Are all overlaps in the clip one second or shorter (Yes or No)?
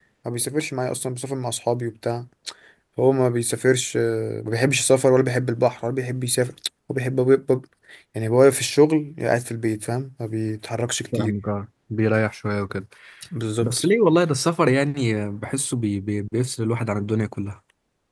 Yes